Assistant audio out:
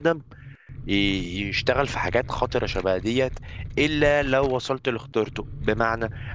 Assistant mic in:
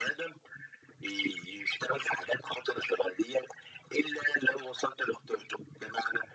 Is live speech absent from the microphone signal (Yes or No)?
Yes